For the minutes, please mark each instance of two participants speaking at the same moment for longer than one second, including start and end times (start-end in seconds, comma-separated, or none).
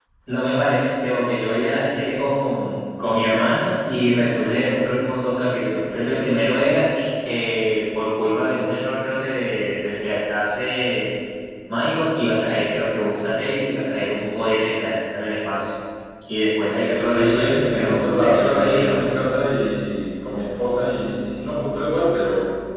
17.0-19.1